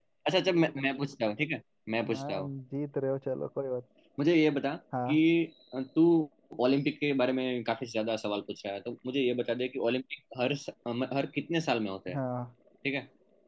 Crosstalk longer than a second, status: none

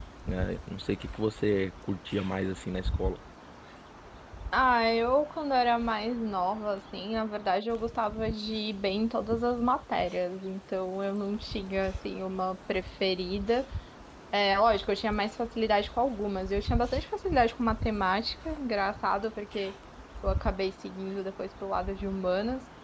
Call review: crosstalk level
none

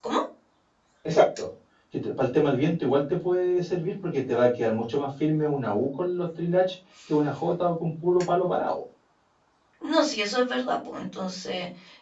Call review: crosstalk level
none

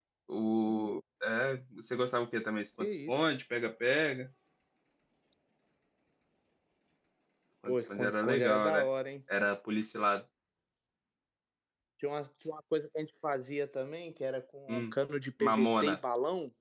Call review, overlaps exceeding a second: present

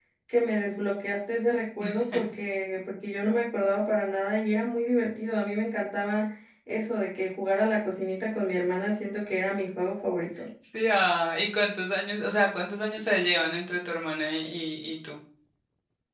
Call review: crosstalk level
none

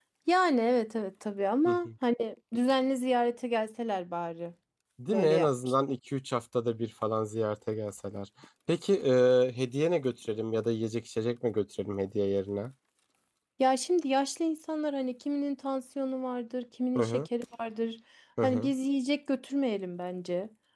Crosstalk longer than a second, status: none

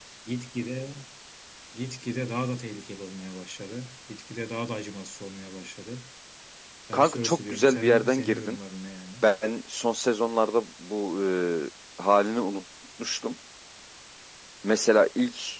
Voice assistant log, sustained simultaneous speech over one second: present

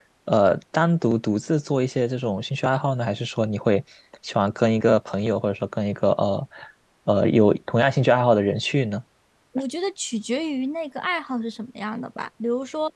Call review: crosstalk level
none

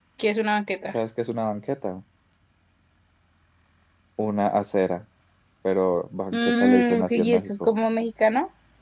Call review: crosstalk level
present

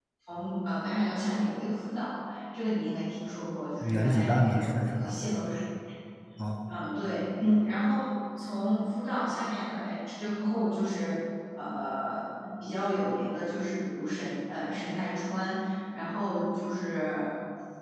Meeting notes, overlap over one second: present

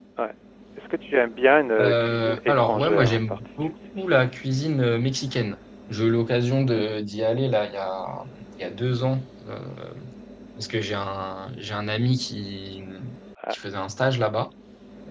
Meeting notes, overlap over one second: present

